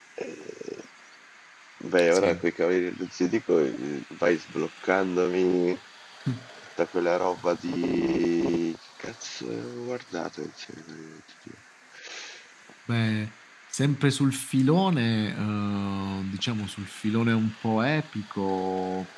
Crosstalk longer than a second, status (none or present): none